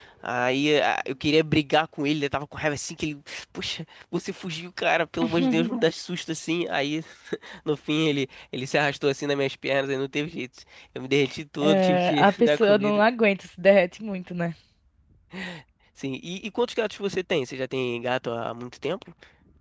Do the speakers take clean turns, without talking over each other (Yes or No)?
No